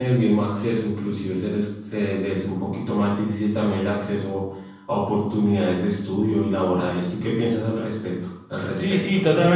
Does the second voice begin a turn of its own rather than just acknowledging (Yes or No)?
Yes